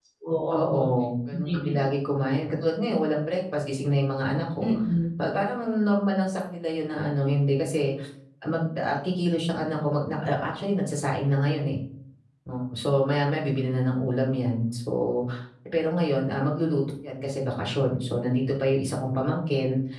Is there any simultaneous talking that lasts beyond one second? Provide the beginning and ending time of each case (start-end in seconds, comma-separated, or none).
none